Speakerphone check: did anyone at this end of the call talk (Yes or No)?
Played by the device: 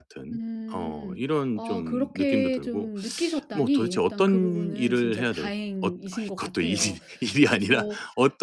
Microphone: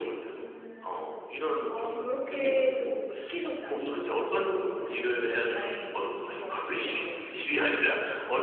No